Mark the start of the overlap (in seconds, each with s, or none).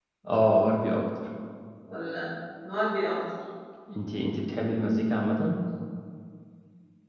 none